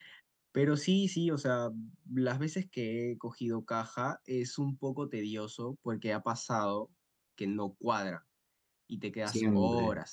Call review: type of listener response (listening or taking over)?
taking over